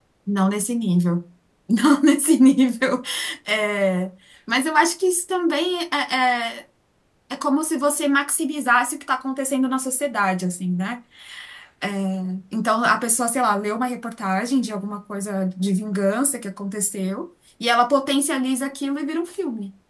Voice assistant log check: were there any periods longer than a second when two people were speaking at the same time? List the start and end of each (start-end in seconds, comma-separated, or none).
none